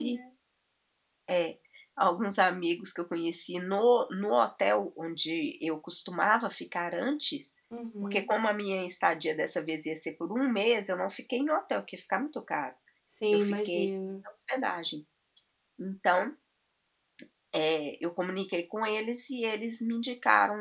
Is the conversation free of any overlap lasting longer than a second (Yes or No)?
Yes